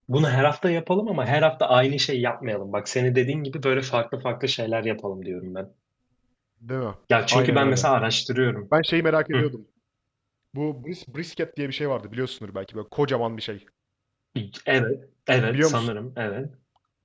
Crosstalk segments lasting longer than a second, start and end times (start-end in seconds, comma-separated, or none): none